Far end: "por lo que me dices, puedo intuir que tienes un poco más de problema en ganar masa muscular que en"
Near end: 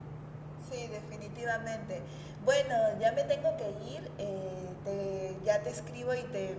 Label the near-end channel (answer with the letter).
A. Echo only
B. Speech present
B